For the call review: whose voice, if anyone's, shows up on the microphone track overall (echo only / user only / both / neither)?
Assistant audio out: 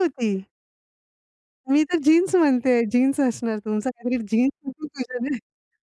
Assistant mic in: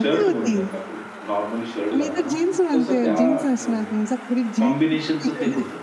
both